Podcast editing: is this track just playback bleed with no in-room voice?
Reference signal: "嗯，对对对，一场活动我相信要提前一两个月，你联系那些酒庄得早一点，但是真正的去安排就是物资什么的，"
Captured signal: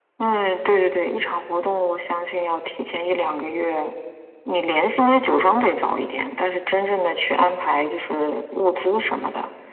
Yes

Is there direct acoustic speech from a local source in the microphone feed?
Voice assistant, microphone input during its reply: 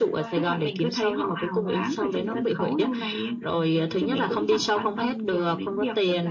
Yes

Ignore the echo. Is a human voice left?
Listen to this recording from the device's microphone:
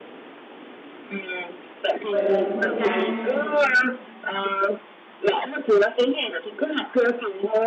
Yes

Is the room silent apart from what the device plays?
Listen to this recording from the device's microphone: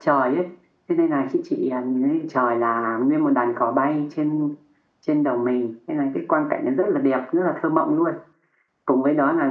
Yes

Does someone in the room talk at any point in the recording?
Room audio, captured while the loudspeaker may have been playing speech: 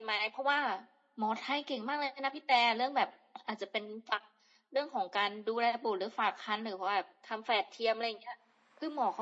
No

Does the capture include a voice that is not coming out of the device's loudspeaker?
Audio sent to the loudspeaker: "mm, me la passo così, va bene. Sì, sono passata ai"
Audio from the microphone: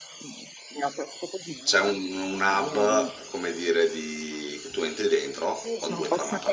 Yes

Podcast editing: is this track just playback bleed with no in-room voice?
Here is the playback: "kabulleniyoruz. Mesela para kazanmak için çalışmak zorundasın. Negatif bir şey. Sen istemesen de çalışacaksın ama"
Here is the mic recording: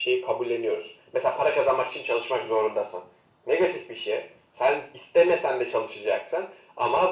Yes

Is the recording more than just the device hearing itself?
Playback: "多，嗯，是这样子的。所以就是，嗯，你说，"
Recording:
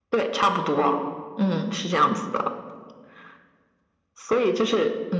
No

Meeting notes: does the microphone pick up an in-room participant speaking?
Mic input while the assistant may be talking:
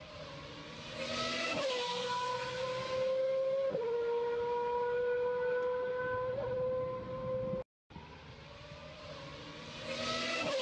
No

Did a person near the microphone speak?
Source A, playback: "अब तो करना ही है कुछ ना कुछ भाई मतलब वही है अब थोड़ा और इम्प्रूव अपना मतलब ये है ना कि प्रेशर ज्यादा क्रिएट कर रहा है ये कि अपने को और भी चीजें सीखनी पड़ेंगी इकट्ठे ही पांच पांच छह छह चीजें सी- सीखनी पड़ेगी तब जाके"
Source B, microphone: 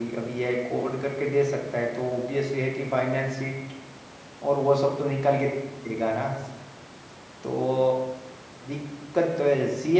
Yes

